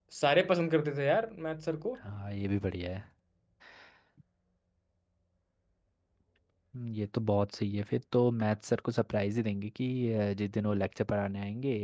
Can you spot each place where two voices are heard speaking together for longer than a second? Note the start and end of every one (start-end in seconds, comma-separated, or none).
none